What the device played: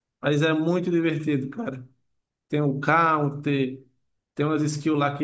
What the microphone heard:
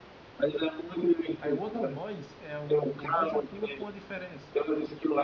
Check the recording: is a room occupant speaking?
Yes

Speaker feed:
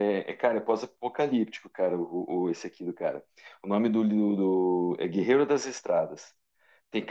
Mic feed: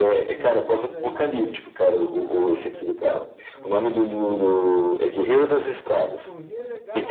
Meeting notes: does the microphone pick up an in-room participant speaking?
Yes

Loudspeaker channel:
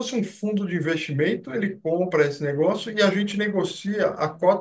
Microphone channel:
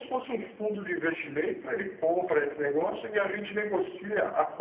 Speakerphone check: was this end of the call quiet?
Yes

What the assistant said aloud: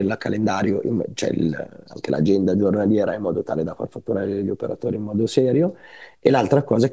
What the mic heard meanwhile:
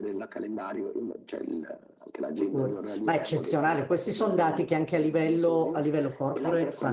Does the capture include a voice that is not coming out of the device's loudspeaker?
Yes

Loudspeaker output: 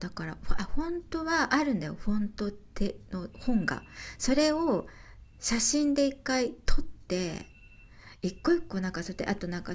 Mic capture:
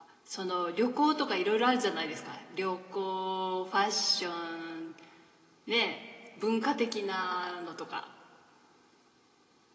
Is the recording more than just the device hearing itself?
Yes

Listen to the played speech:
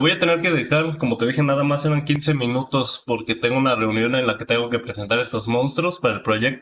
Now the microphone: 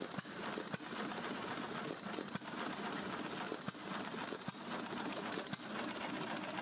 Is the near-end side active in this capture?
No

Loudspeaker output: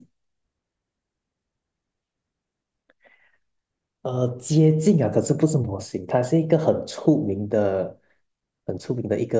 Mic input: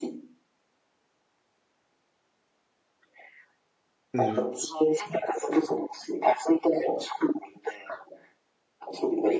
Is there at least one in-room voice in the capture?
Yes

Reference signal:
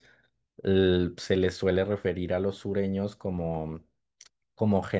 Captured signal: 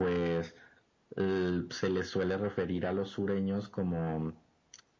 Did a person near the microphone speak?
No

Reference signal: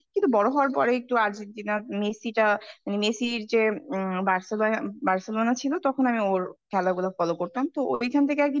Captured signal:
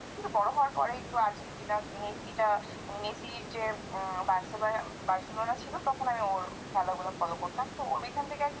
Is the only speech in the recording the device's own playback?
Yes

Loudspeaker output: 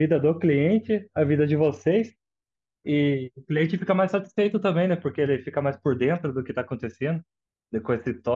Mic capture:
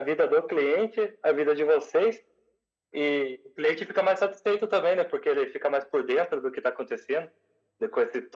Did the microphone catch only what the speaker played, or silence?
Yes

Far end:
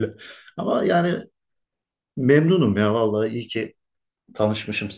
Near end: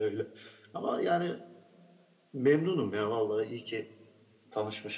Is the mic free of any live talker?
Yes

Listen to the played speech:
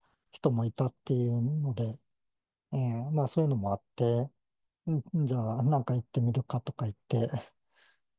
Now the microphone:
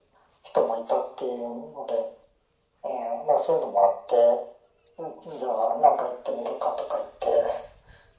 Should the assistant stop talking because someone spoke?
No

